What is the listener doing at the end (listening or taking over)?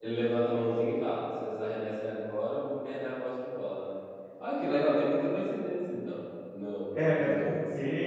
taking over